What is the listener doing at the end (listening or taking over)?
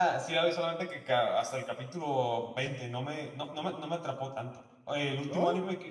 listening